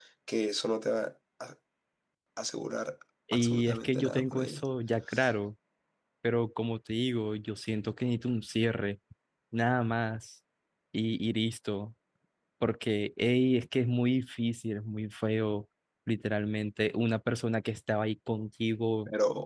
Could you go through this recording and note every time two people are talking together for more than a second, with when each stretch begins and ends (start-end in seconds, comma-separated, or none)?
3.3-4.6